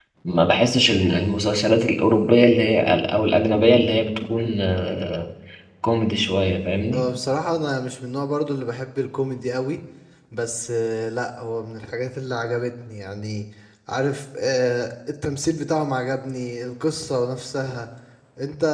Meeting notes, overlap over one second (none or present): none